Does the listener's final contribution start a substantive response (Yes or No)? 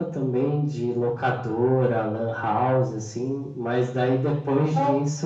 No